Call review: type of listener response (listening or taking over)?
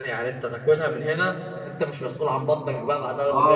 taking over